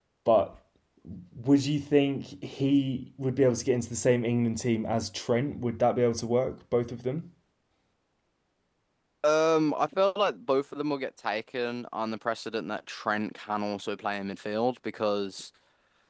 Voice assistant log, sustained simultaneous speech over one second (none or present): none